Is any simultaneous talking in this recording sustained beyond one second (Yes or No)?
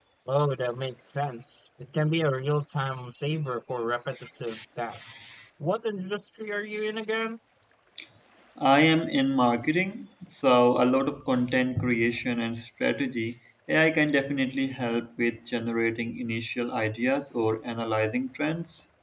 No